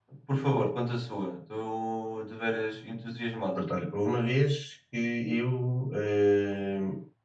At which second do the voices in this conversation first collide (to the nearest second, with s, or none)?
none